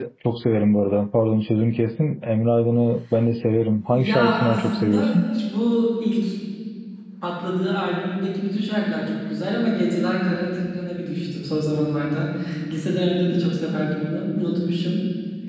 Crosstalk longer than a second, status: present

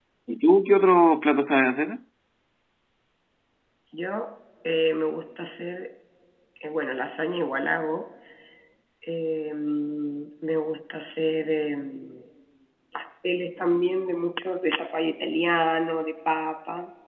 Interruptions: none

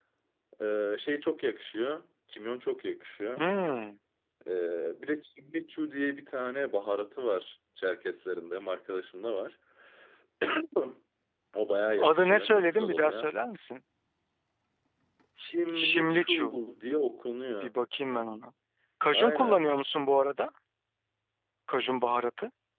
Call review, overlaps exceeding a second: present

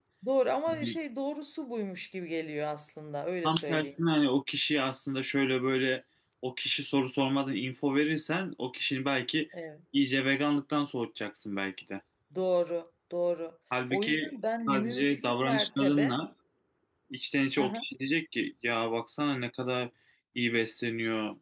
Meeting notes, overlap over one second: present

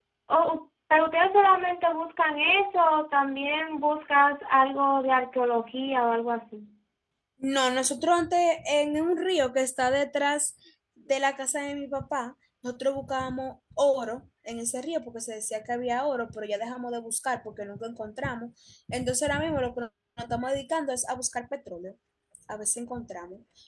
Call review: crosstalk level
none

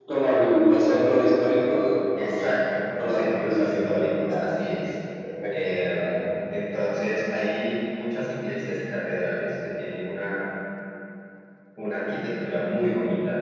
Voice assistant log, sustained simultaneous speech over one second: present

